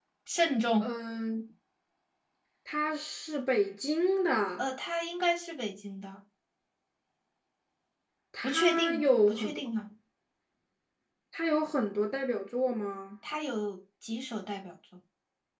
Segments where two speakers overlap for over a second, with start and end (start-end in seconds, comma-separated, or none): 8.4-9.7